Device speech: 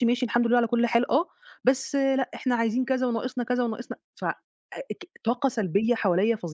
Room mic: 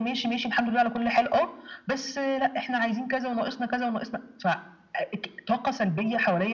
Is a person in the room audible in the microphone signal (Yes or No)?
No